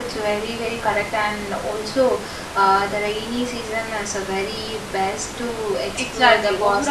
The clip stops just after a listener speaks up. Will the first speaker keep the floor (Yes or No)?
No